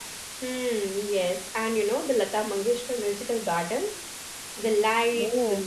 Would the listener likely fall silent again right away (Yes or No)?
Yes